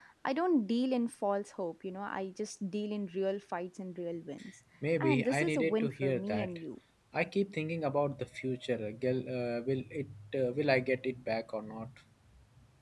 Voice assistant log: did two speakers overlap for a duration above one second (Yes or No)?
Yes